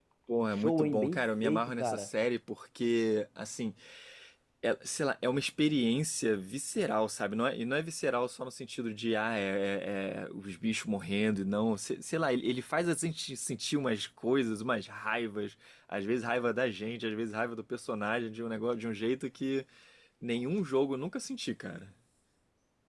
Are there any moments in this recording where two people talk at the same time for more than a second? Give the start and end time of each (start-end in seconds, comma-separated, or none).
0.5-2.1